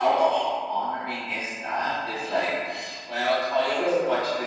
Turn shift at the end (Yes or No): No